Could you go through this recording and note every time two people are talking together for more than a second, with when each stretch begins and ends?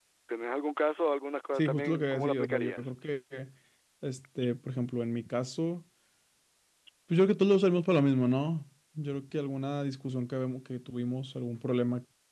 1.6-2.9

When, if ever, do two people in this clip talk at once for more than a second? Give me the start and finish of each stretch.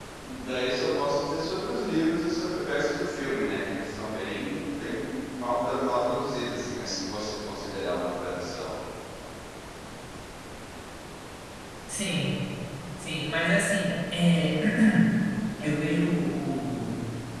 none

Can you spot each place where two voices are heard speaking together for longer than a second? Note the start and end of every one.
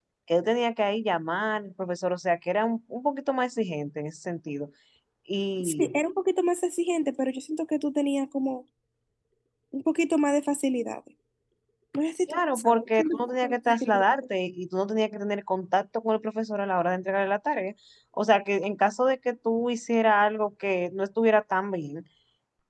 12.3-13.9

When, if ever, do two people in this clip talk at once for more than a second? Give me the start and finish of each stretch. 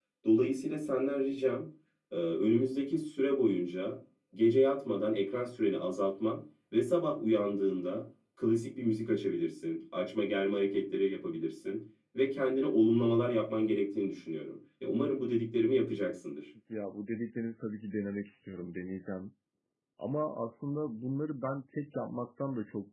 none

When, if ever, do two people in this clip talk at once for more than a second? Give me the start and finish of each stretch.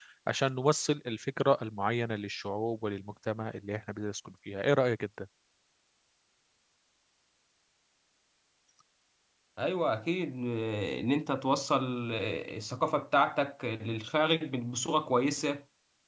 none

